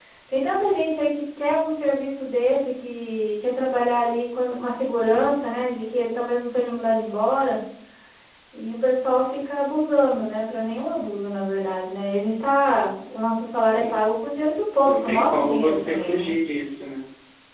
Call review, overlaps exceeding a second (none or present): present